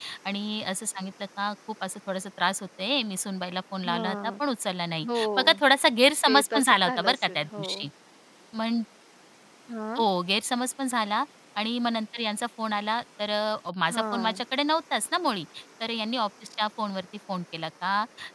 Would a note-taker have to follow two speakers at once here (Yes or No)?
Yes